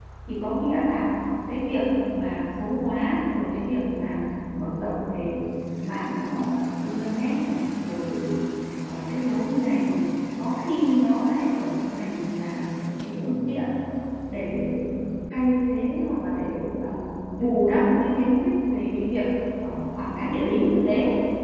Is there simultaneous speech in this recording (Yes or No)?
No